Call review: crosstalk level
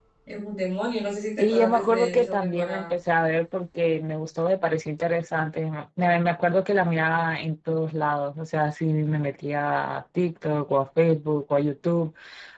present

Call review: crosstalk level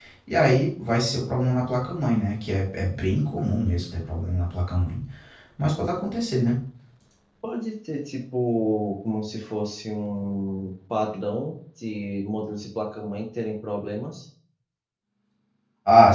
none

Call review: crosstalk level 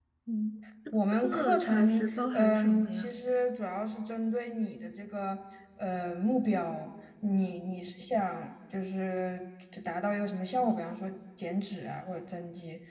present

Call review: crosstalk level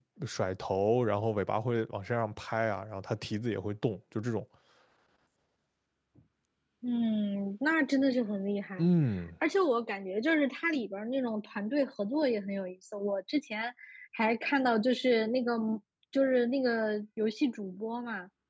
none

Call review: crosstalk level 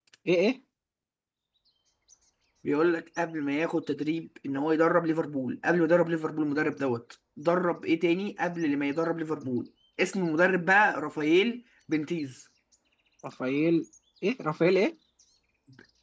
none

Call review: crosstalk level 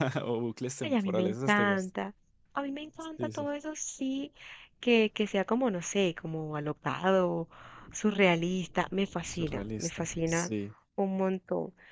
present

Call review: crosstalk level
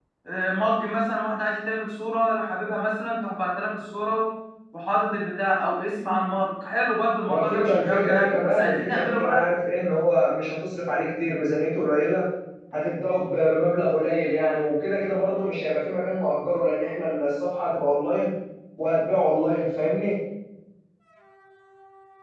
present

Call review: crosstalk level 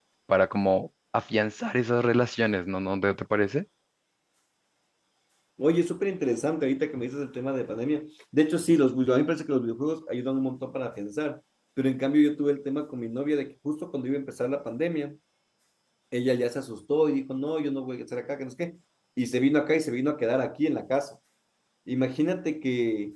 none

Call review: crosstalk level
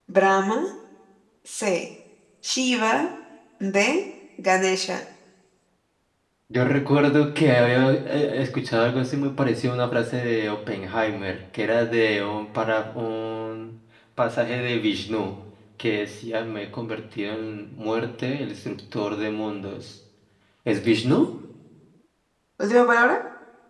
none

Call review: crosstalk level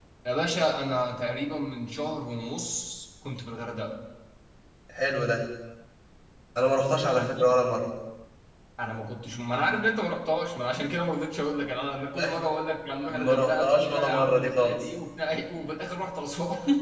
present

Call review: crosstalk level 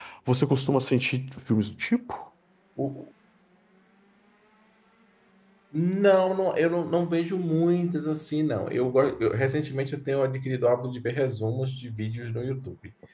none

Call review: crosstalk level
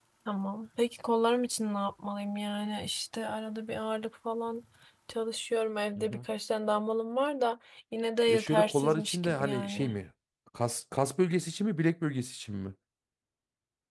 present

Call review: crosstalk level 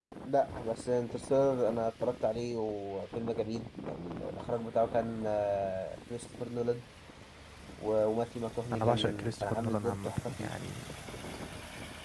present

